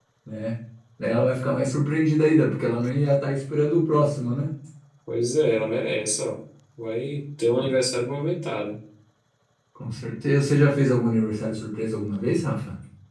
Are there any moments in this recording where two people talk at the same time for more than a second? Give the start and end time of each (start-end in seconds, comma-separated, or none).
none